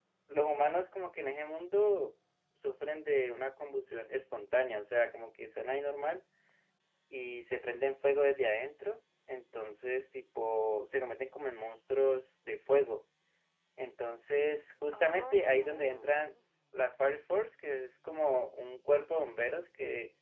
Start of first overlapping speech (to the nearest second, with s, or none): 15 s